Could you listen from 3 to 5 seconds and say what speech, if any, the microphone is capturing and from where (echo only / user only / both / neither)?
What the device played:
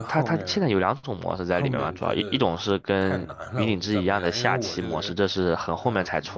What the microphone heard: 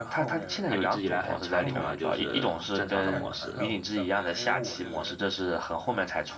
both